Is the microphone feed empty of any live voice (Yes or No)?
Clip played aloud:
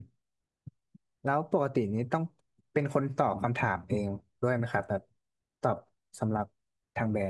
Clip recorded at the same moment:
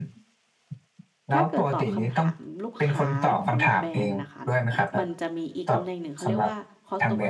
No